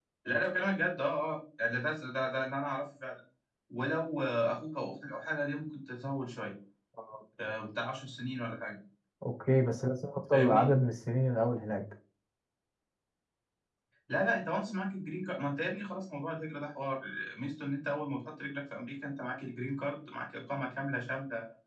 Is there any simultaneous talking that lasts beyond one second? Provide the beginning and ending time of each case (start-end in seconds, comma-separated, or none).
none